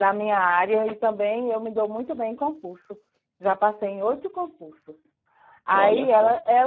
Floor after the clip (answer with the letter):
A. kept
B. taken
A